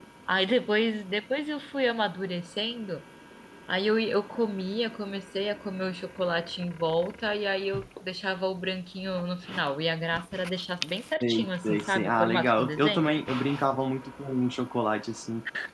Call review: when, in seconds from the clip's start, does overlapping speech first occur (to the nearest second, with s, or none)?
11 s